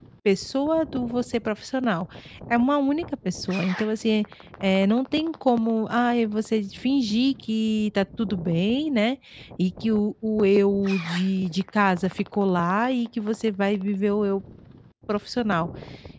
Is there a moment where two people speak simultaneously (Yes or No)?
No